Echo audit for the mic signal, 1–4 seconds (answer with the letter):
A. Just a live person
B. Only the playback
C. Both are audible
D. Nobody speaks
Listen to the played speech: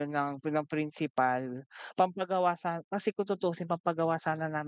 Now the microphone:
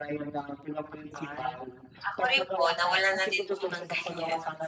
C